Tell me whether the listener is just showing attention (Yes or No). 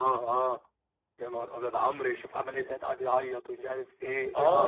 No